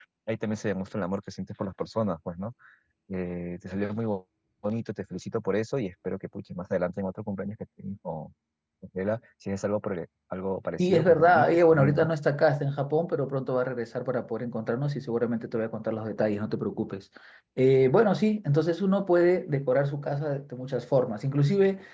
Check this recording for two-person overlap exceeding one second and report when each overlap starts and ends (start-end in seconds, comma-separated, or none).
10.8-12.1